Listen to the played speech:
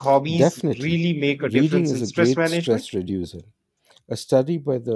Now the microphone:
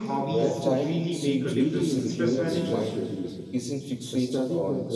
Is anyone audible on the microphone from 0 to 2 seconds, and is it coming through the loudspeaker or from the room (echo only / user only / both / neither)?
both